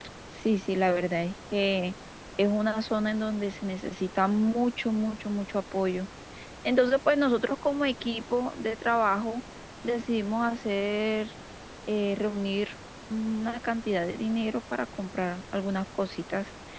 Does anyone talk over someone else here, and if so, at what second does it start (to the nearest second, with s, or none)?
none